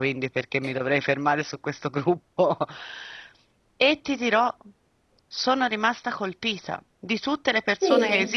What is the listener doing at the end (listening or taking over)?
listening